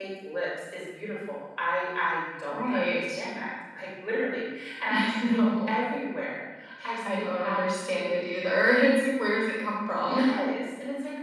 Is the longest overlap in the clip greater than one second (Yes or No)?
Yes